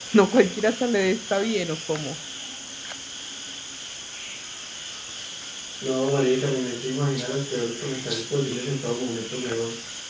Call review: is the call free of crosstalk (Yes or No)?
Yes